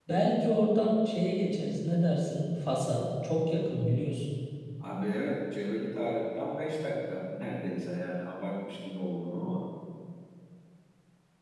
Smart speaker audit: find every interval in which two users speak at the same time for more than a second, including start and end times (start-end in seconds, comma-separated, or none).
none